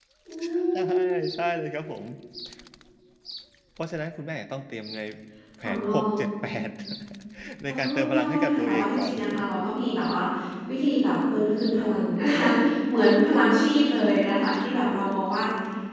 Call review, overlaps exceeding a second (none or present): present